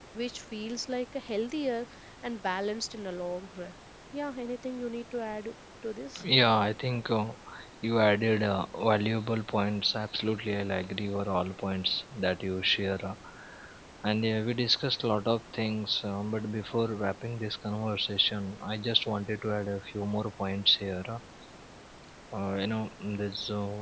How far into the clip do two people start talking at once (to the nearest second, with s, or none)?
none